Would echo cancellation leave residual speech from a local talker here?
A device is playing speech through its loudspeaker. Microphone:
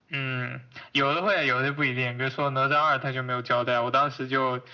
No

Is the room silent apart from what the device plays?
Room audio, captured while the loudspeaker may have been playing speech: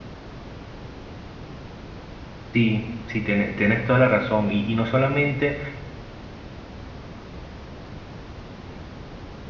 No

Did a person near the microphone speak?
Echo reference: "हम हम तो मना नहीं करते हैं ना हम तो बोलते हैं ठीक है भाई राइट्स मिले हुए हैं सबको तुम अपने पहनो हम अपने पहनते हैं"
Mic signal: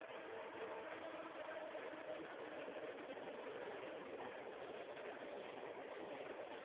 No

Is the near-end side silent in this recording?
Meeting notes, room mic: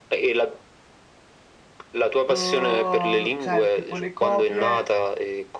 No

